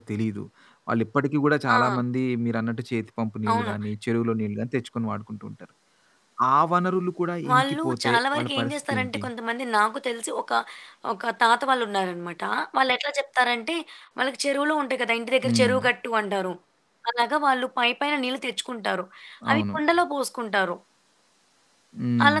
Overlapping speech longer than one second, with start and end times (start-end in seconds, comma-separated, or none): 7.5-9.2